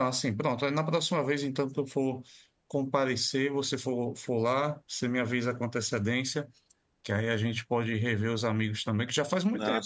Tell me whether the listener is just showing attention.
Yes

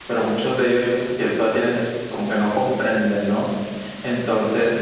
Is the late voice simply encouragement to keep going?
Yes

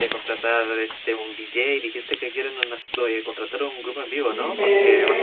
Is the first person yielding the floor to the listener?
Yes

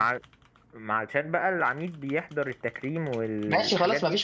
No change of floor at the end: No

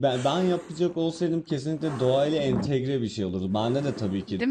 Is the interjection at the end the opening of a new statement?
No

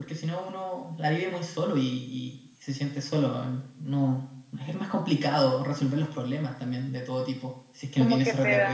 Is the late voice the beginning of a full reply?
Yes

